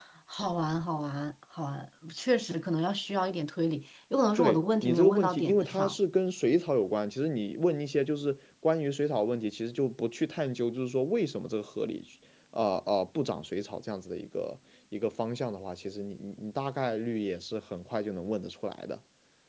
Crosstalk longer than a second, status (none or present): present